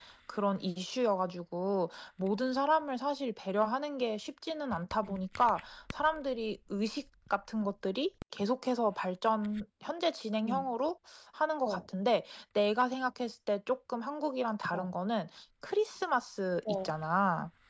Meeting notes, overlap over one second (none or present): none